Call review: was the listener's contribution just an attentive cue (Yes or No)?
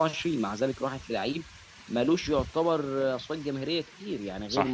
Yes